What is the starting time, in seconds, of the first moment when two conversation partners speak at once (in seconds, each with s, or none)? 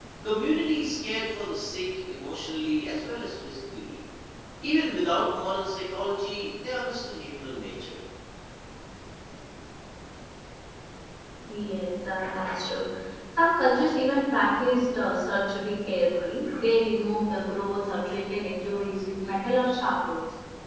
none